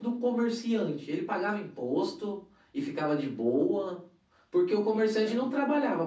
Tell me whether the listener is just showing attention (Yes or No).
Yes